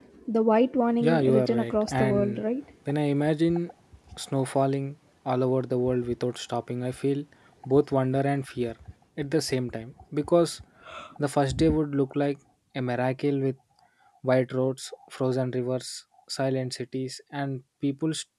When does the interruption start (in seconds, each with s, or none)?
1.0 s